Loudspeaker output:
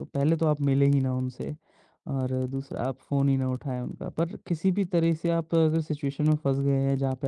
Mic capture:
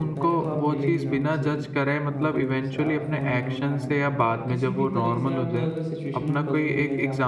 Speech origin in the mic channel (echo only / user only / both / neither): both